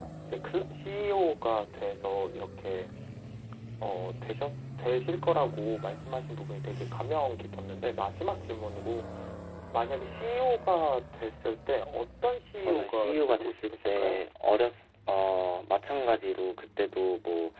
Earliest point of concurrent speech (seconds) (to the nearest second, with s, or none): 13 s